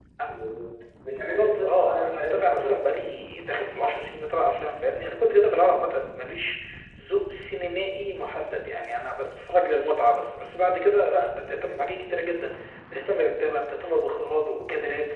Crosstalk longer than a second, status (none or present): present